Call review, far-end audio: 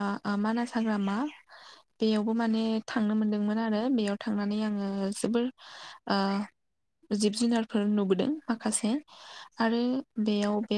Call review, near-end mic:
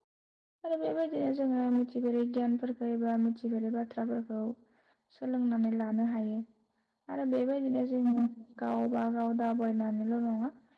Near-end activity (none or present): present